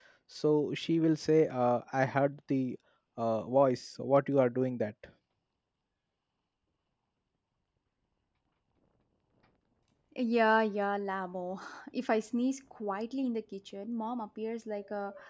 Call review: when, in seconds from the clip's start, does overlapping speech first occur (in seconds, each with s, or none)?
none